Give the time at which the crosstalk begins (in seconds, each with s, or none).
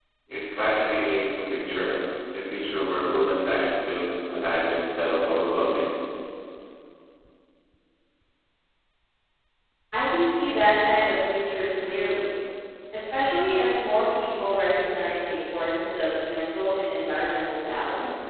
none